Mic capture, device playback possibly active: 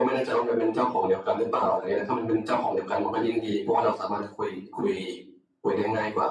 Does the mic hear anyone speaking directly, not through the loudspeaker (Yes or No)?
No